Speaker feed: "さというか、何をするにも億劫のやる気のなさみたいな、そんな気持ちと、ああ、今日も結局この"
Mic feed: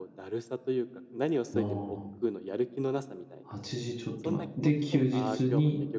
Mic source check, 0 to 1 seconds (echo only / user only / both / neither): echo only